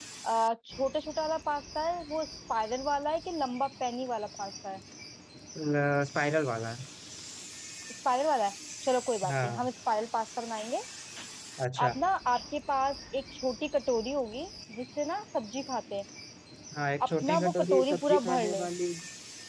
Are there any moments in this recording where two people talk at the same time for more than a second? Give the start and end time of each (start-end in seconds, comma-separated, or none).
17.1-18.6